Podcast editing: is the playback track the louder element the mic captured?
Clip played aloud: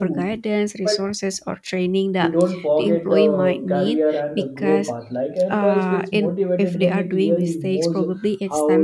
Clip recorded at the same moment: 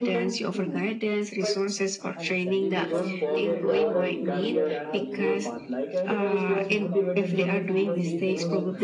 Yes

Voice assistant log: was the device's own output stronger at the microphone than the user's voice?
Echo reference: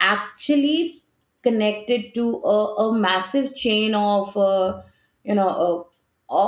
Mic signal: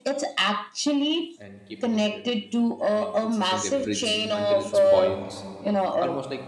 Yes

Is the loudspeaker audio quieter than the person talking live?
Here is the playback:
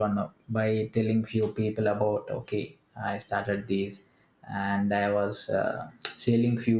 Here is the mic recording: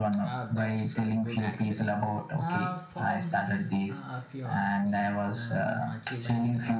No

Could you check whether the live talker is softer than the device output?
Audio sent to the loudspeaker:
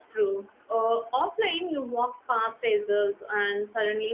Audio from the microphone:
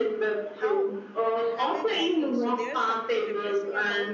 Yes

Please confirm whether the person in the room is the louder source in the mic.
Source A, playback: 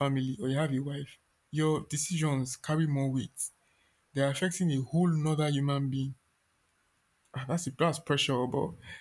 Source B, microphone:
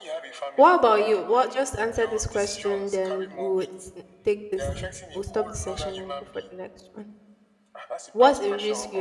Yes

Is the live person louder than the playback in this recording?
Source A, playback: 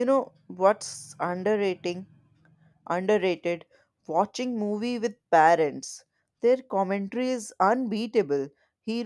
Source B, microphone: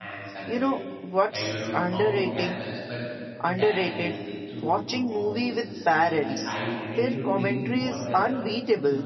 No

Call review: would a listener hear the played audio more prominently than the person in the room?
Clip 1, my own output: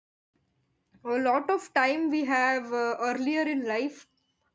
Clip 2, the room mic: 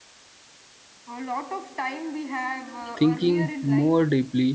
No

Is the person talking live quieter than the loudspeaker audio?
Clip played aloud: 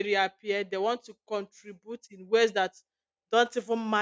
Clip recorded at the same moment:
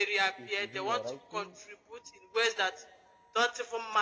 Yes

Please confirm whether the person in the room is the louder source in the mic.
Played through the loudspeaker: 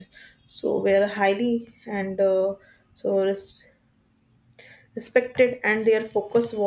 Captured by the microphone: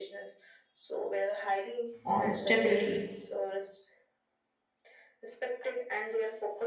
Yes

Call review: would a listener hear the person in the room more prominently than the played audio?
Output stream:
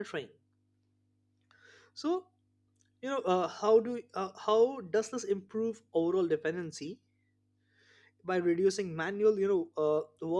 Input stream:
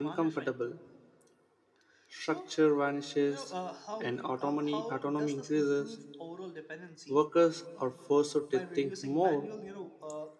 Yes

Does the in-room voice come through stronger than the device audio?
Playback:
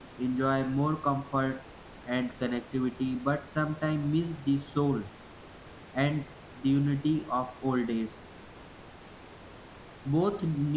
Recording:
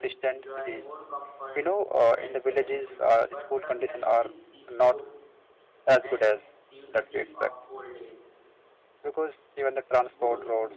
Yes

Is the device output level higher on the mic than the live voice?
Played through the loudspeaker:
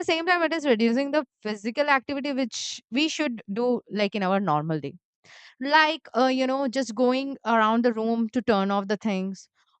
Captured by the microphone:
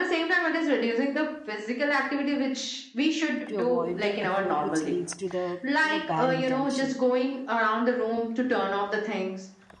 Yes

